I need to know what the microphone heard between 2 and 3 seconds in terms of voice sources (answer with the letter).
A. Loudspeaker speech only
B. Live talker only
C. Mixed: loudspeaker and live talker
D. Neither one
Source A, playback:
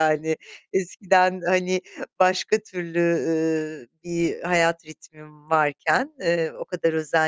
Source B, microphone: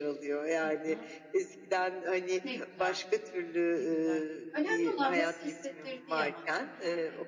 C